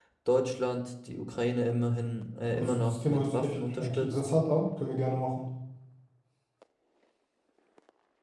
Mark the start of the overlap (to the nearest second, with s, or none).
3 s